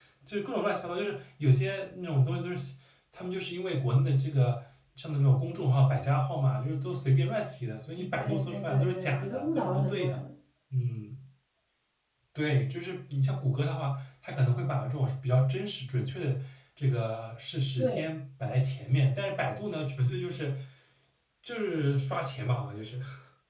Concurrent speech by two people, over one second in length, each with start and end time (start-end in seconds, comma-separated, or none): 8.1-10.2